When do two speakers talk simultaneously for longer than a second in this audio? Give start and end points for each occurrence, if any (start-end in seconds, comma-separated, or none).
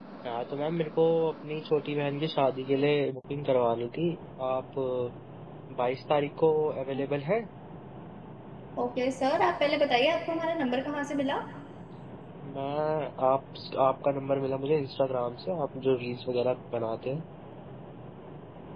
none